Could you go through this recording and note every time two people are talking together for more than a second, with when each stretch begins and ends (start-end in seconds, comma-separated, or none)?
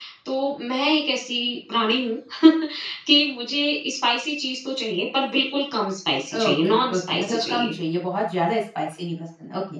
6.3-7.7